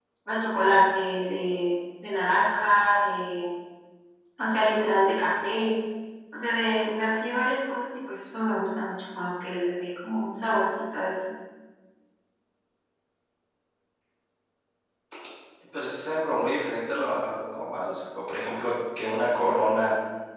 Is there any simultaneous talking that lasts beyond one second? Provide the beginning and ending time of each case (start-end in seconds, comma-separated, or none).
none